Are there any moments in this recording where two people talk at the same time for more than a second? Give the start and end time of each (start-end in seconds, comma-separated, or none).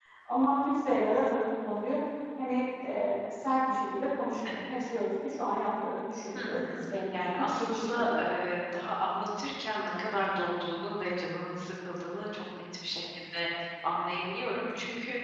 6.4-8.2